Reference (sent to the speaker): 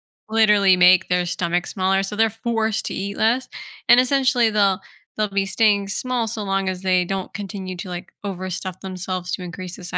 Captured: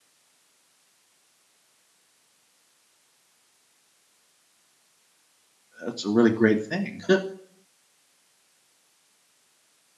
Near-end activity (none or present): present